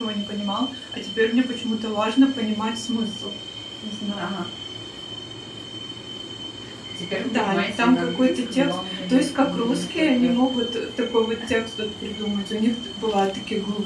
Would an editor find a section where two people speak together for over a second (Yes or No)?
Yes